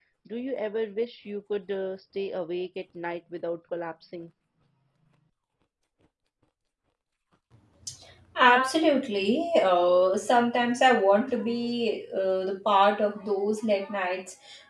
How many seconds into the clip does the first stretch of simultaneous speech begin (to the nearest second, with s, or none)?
none